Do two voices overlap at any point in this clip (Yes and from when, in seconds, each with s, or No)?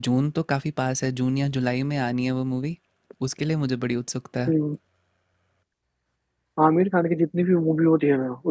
No